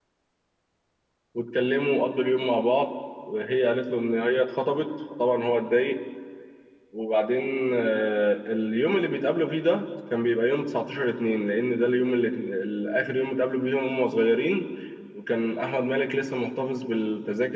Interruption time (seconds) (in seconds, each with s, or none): none